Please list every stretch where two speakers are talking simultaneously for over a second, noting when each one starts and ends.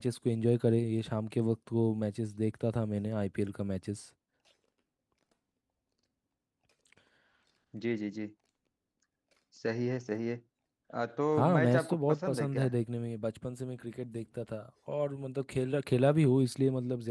11.4-12.7

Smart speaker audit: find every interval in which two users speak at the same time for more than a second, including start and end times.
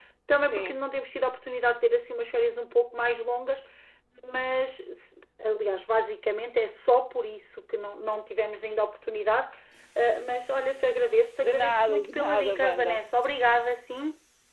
11.4-13.0

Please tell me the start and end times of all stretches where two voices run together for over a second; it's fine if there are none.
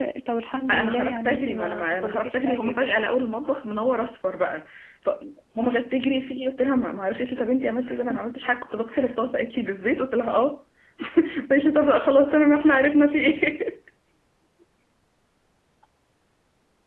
0.7-2.9

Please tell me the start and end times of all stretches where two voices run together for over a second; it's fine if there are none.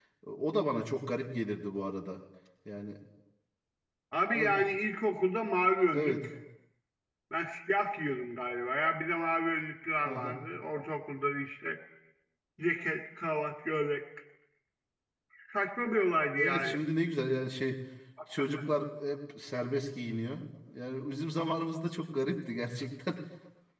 none

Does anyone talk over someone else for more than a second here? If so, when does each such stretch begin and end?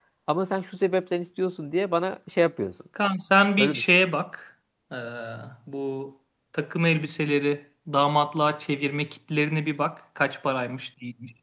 none

